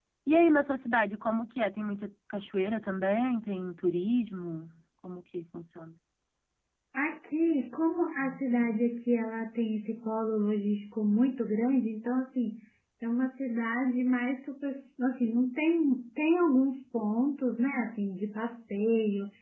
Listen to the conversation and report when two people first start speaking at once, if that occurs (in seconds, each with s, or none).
none